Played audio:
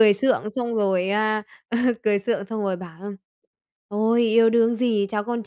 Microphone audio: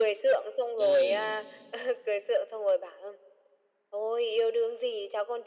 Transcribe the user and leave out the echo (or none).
Ừm,